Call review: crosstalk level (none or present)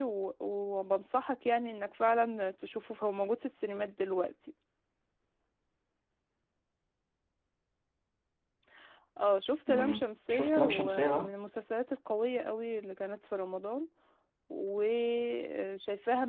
present